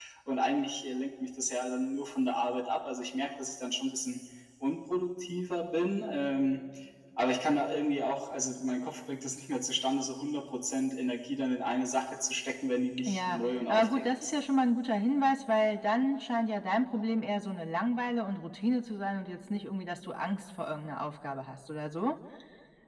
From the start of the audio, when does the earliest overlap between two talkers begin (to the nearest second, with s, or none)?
13 s